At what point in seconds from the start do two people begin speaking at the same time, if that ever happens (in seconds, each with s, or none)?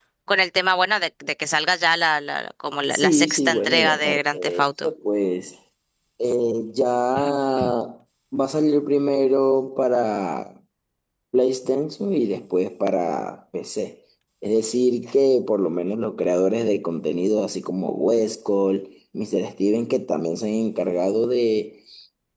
2.9 s